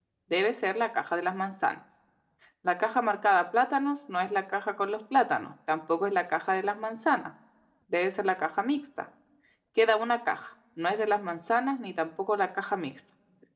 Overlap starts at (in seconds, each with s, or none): none